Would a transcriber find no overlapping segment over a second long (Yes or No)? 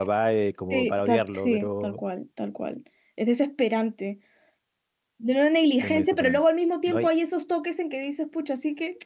No